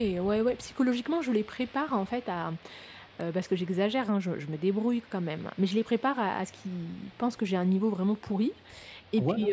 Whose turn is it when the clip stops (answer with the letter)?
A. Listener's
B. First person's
B